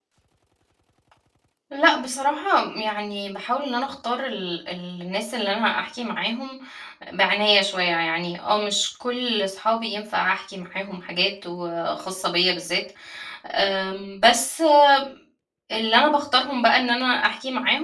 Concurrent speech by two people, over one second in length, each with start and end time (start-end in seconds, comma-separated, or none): none